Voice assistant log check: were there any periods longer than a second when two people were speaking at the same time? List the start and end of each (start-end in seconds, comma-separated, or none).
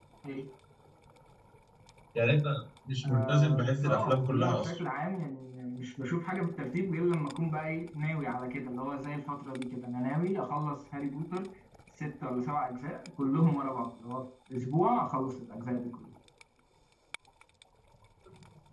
3.0-4.6